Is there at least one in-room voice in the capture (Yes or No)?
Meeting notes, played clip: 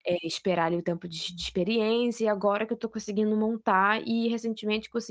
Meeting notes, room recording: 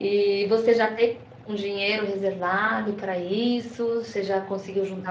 Yes